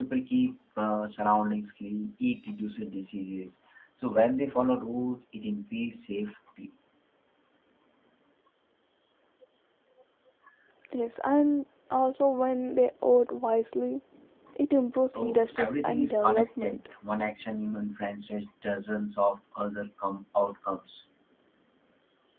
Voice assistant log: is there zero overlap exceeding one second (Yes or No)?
No